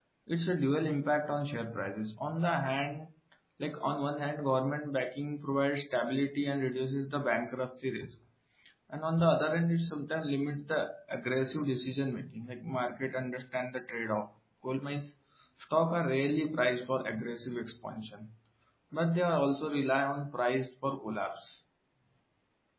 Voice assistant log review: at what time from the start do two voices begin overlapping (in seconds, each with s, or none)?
none